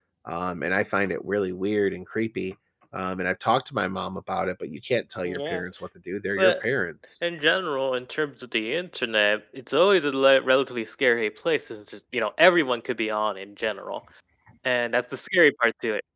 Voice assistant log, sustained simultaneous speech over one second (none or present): none